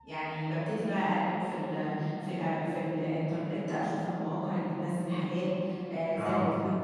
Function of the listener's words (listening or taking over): listening